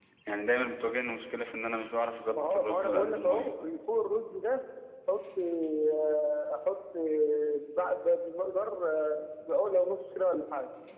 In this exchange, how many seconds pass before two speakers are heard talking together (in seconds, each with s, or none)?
2.3 s